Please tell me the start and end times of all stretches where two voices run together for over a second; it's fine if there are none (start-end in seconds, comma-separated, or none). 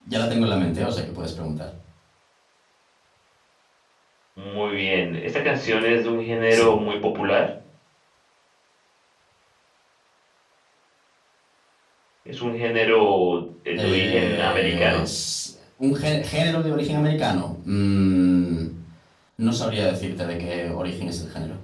13.8-15.0